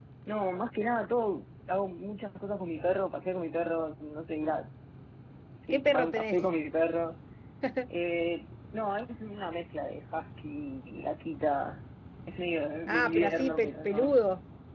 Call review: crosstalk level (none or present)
present